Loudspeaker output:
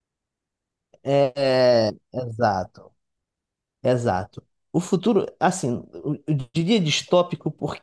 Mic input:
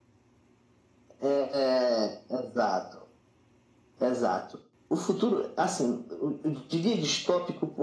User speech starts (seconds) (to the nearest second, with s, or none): none